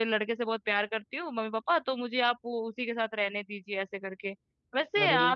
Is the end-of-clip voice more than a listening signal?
No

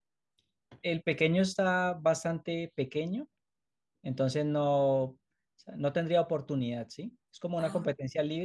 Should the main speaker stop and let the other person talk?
No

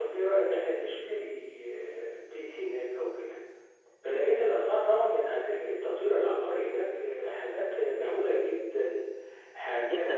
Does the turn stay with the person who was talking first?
No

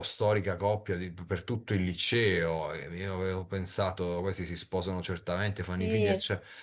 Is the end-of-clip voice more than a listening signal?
No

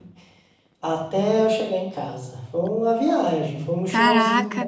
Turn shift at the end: Yes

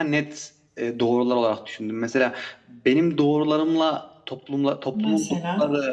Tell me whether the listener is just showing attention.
Yes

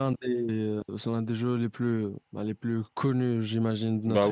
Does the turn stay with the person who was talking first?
No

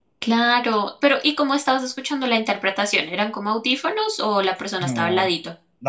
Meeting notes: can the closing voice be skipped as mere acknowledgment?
No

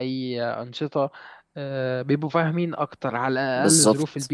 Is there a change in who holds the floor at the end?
Yes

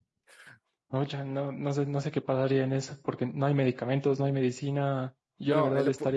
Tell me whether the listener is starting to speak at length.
No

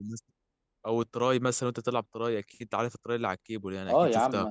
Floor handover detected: Yes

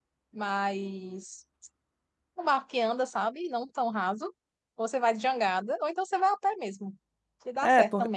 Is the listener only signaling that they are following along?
No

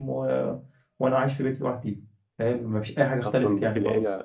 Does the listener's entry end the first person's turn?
Yes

